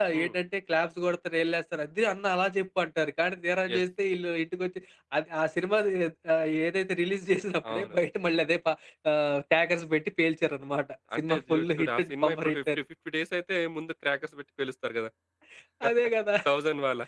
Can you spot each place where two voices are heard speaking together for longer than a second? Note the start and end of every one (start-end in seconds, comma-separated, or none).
11.2-12.8